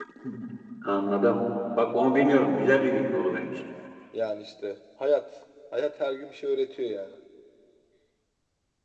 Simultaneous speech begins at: none

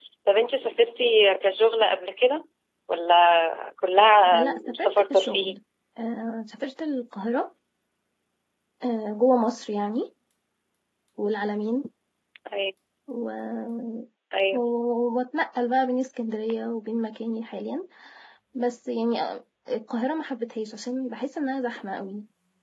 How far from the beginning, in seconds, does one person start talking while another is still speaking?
4 s

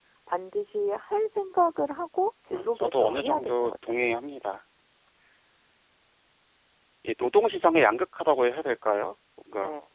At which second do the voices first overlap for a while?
3 s

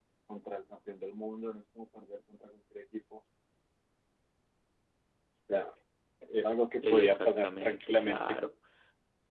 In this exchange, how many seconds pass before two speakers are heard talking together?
7 s

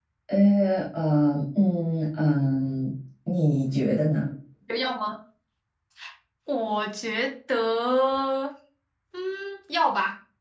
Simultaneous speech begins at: none

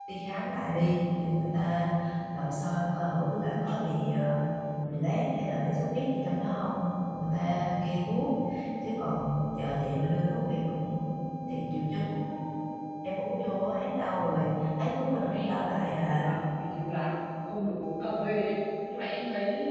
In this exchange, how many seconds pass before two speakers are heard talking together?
15 s

